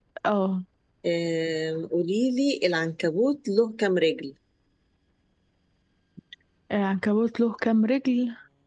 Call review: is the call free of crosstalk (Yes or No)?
Yes